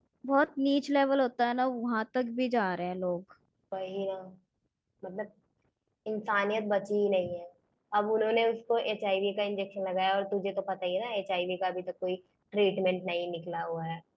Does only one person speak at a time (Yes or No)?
Yes